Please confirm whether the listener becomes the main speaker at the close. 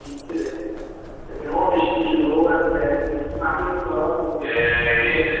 Yes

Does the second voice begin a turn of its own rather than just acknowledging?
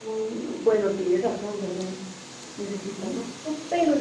No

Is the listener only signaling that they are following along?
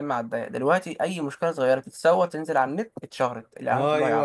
No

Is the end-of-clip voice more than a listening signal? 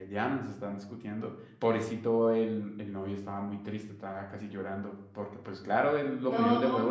No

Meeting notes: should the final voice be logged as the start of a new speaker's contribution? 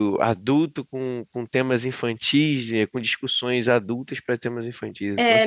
Yes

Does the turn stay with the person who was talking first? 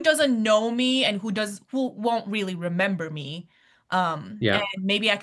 Yes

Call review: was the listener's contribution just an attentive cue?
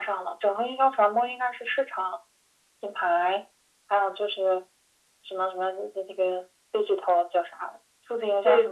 No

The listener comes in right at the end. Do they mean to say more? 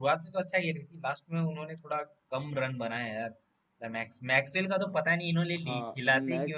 Yes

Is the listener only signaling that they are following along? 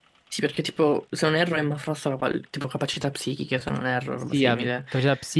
No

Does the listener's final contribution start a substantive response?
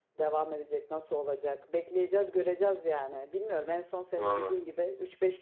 No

